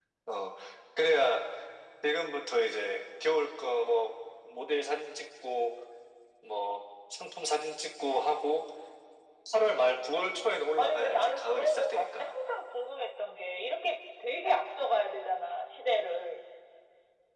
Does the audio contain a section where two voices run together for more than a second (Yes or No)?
Yes